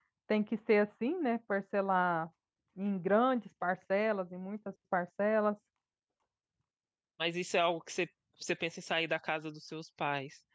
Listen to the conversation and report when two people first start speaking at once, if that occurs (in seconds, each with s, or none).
none